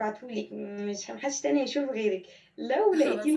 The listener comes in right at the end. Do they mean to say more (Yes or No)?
No